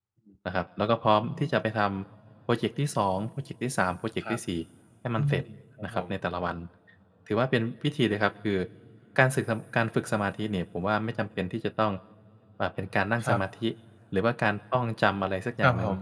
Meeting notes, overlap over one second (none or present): none